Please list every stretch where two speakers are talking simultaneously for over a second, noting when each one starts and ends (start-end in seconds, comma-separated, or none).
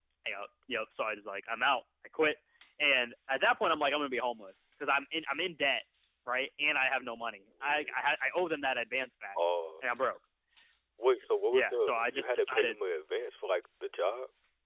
11.5-12.7